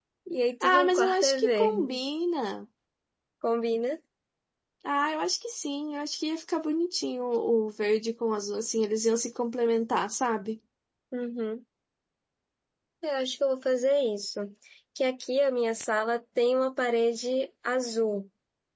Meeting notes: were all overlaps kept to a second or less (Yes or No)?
No